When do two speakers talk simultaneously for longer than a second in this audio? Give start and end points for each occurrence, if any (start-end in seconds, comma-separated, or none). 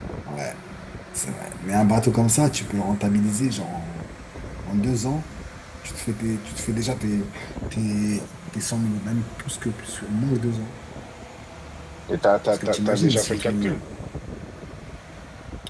12.5-13.8